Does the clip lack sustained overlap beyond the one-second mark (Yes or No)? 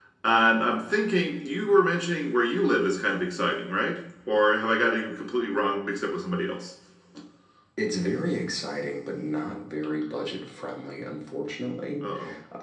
Yes